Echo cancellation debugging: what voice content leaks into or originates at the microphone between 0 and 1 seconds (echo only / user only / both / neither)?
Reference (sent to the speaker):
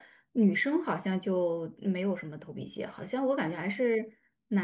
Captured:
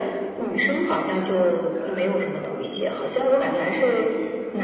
both